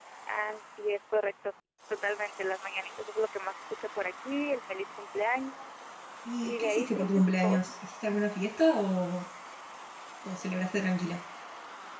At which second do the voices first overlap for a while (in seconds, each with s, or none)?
6.4 s